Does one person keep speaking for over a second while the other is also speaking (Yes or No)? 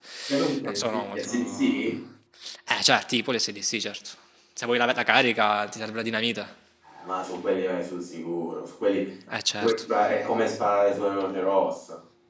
Yes